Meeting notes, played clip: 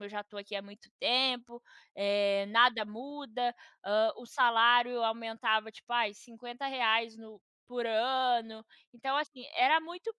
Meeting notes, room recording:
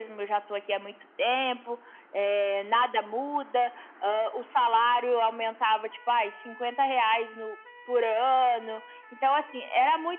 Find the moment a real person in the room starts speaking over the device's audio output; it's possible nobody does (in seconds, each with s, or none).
none